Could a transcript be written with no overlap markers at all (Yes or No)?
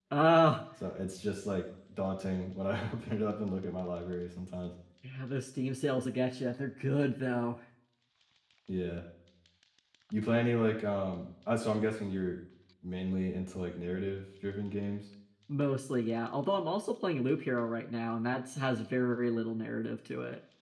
Yes